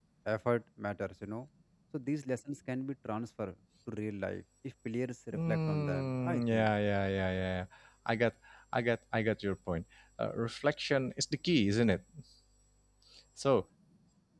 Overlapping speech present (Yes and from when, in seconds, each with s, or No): Yes, from 5.3 s